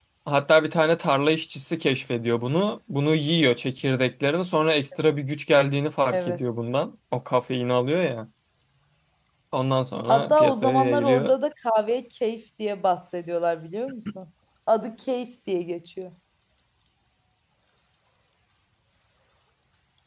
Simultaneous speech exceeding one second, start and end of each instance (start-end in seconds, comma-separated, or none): 10.1-11.3